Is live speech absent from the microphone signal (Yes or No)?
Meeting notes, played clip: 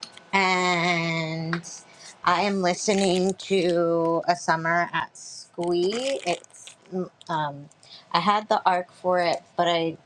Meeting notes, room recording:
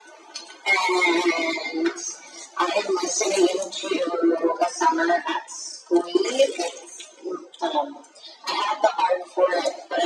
Yes